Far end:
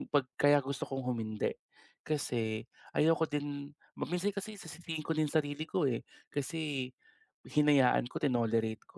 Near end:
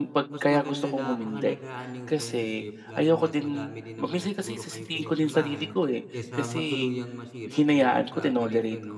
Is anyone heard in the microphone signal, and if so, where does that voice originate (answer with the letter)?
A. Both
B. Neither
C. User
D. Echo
A